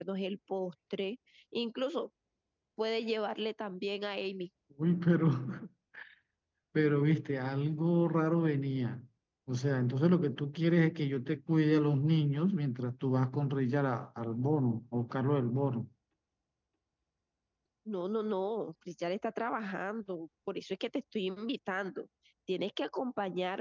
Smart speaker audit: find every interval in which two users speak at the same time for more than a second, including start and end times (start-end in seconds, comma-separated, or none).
none